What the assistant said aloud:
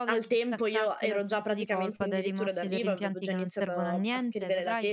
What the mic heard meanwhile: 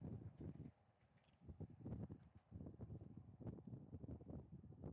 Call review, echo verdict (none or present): none